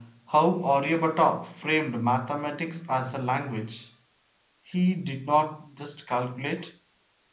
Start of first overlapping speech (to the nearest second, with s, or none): none